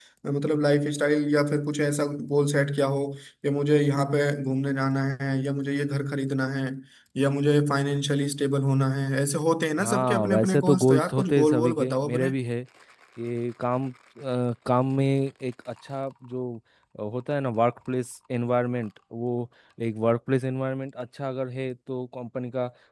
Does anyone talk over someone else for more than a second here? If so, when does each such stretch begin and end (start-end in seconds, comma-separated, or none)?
9.8-12.3